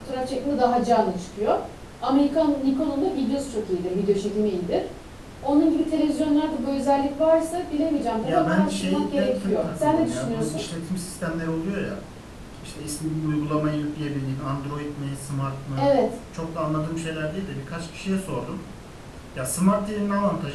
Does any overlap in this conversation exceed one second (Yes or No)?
Yes